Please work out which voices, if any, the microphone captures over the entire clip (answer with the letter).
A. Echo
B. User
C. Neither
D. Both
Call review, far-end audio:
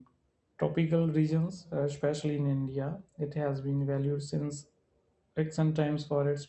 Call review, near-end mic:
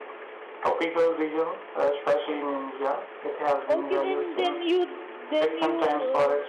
D